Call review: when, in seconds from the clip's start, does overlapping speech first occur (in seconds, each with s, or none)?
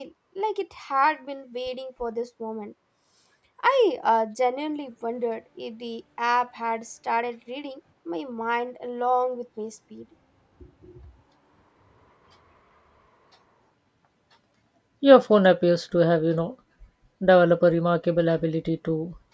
none